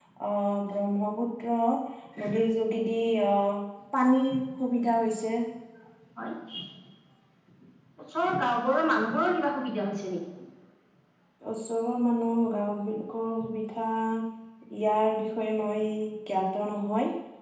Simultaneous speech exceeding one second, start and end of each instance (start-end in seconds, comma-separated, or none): none